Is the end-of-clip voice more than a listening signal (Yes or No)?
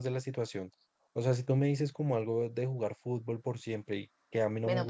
Yes